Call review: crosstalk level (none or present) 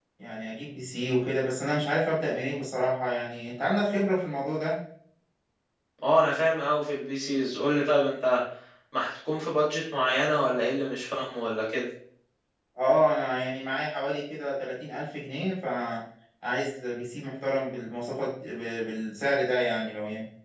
none